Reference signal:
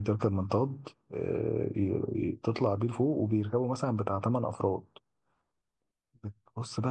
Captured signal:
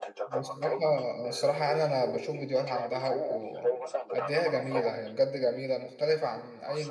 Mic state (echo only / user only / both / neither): both